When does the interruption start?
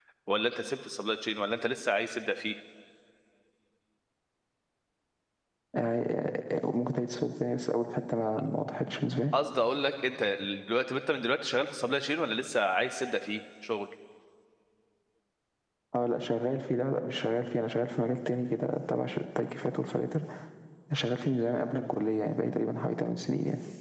none

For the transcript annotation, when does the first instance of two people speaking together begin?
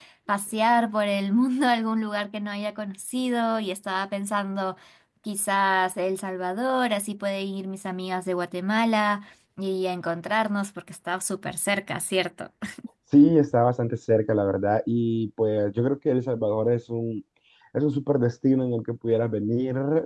none

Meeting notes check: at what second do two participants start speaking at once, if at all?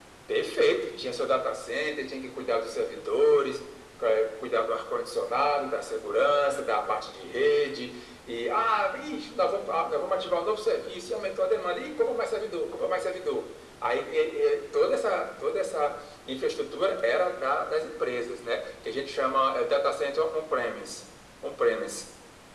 none

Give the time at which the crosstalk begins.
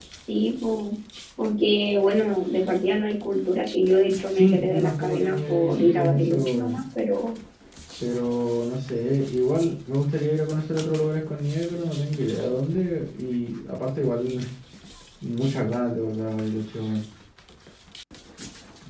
4 s

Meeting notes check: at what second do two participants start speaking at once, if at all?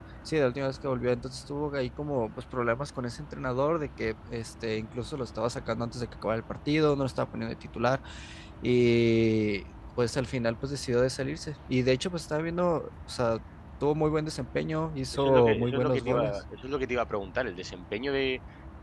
15 s

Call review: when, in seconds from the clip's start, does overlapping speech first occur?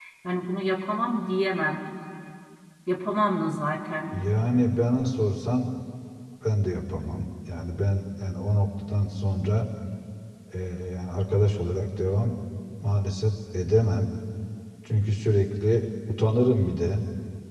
none

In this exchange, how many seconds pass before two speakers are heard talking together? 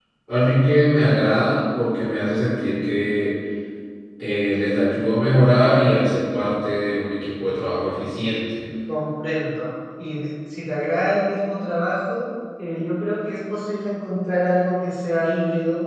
none

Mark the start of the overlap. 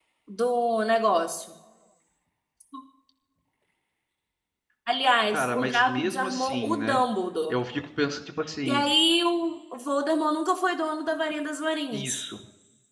5 s

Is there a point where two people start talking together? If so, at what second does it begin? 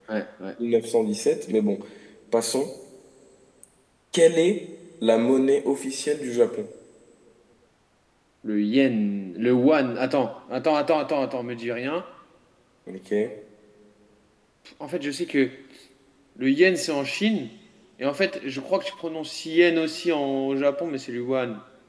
none

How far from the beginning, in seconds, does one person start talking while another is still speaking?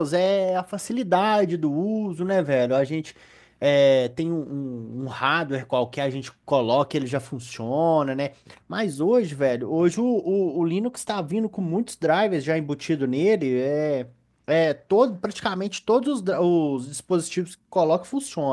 none

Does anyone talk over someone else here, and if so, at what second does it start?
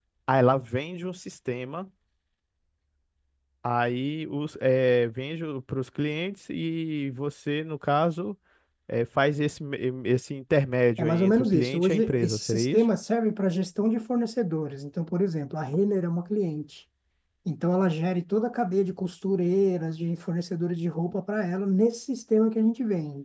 11 s

